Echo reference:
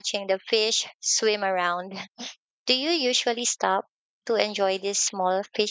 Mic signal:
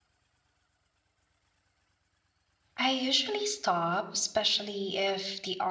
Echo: none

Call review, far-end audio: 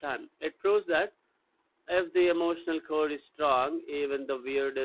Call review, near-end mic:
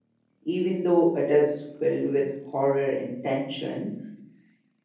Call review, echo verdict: none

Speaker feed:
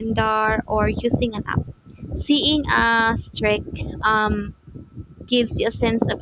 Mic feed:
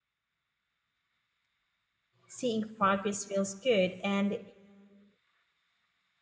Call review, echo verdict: none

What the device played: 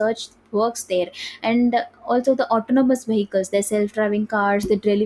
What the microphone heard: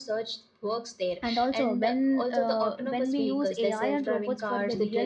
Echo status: present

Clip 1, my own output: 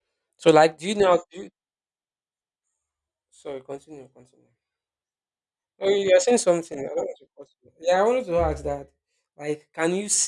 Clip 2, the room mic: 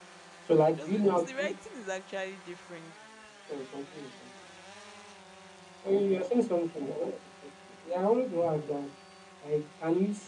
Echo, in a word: present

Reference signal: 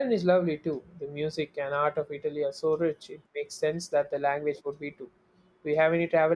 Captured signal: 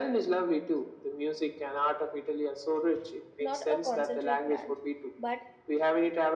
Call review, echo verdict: present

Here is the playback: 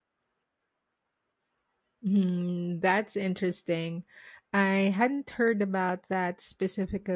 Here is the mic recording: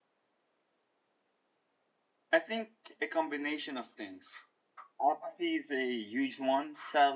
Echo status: none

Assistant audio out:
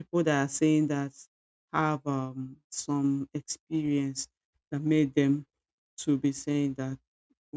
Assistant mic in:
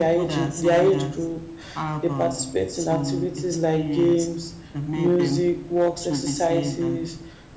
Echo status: present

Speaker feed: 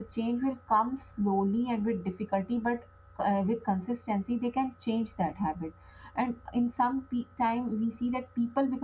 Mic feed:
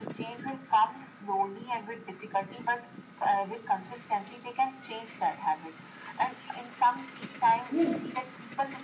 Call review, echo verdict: present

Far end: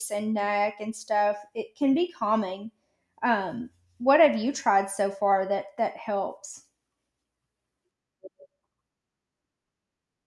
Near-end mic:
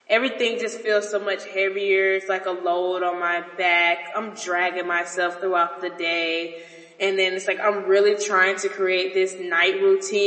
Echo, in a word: none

